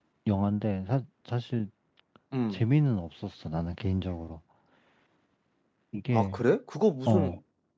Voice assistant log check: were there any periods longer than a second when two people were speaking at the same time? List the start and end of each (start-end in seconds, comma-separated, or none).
none